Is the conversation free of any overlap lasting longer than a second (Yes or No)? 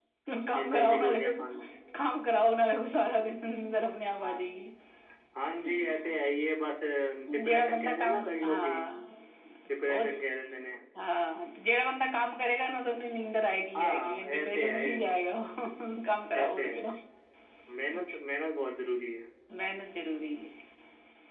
No